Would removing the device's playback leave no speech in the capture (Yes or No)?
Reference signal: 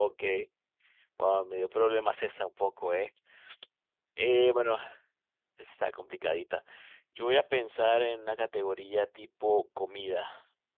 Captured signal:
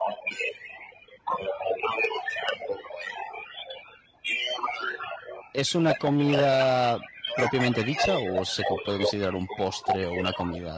No